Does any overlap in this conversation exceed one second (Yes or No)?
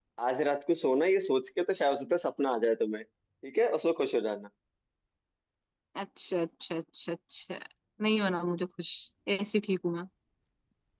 No